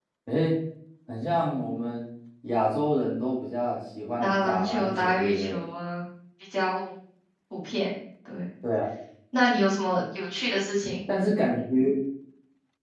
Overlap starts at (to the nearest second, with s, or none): 4 s